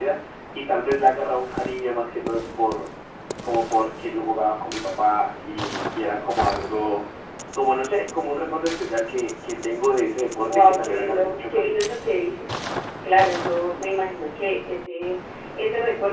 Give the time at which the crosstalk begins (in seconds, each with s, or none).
10.5 s